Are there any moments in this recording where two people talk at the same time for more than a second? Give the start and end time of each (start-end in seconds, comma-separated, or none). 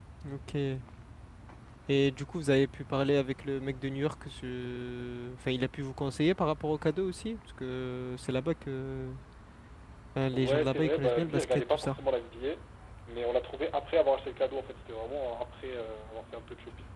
10.3-12.0